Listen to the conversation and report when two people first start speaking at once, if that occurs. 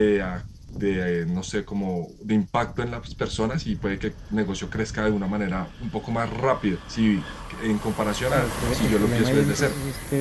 8 s

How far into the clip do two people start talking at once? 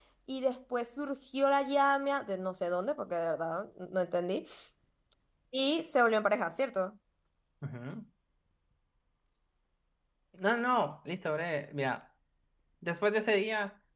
none

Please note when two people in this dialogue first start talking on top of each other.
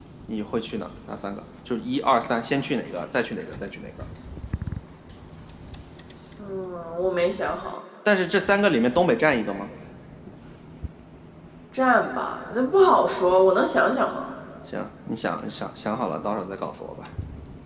none

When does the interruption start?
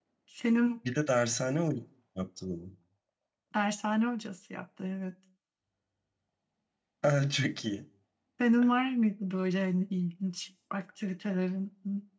none

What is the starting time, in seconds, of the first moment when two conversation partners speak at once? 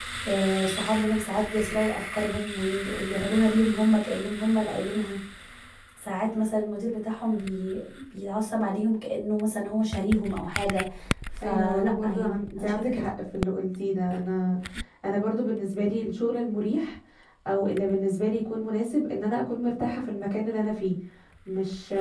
11 s

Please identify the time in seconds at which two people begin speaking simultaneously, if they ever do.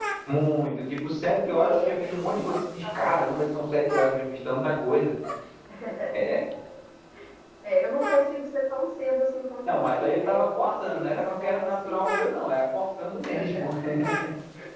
2 s

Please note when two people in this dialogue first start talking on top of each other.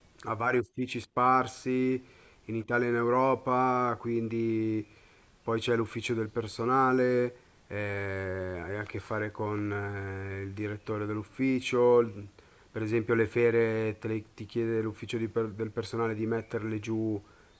none

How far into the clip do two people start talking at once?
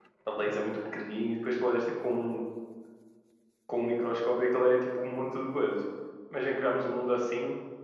none

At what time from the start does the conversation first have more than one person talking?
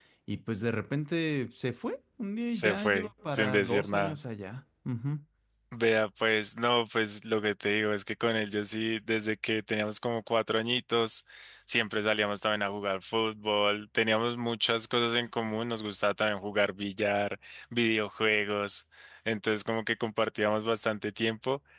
3 s

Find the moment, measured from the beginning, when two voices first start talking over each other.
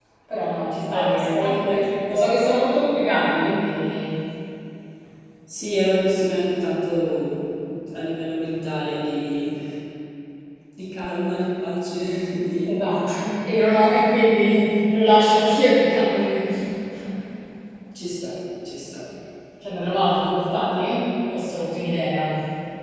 1 s

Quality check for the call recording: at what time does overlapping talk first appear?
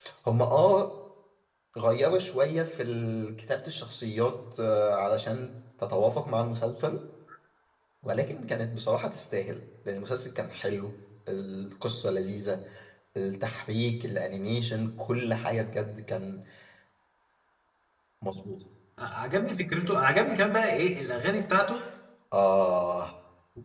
none

